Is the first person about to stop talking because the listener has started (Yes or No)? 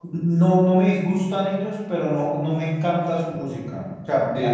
Yes